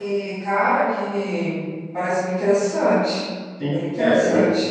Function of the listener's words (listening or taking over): taking over